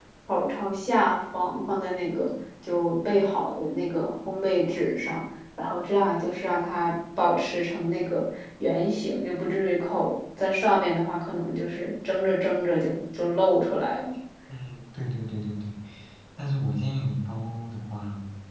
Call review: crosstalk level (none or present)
none